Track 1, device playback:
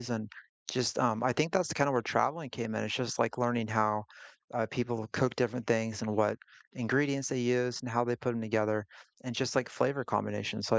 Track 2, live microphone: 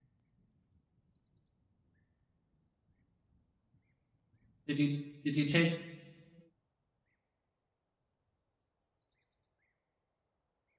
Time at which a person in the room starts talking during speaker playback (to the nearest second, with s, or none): 5 s